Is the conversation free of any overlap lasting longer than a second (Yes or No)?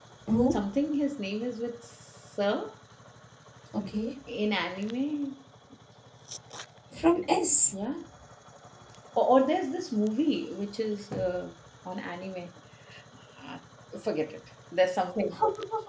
Yes